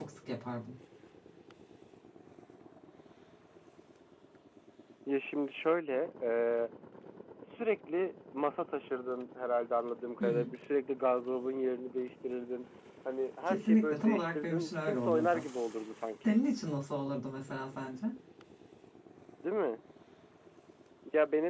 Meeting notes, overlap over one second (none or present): present